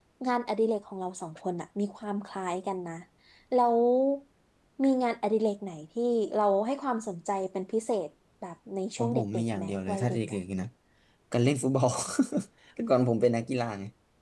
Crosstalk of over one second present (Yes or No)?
Yes